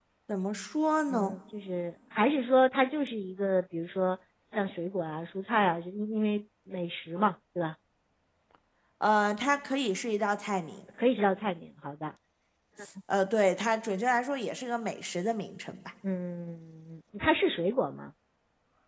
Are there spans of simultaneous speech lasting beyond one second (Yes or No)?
No